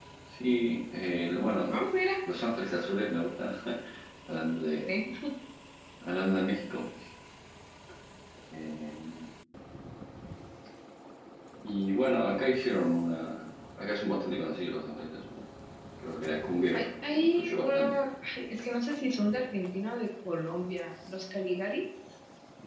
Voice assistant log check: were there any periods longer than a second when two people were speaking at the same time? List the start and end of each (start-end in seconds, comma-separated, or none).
16.7-18.0